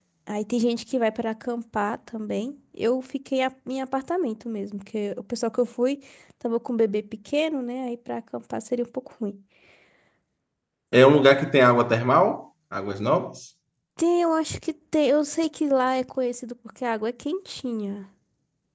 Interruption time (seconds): none

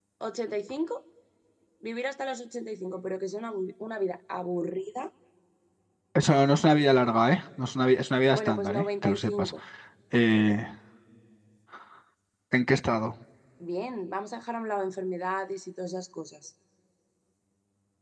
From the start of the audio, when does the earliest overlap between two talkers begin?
8.3 s

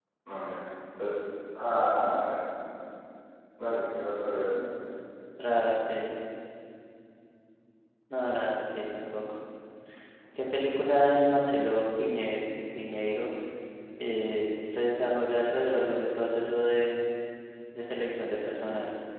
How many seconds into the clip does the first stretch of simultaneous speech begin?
none

